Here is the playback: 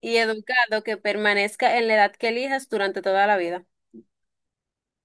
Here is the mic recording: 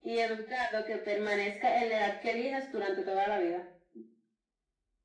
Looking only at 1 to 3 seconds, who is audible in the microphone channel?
echo only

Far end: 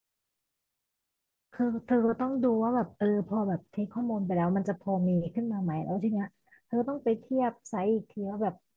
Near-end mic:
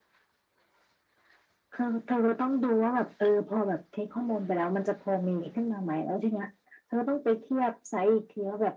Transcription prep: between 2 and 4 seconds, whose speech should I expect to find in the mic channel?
echo only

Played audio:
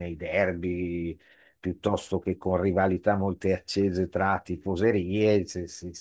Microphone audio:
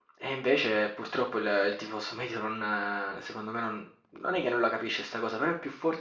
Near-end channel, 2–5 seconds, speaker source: user only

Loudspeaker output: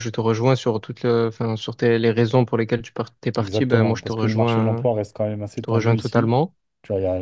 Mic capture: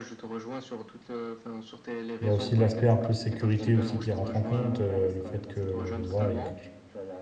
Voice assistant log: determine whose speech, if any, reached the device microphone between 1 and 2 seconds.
echo only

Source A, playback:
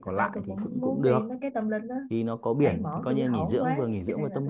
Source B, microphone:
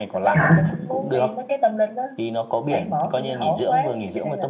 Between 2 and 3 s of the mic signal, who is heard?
echo only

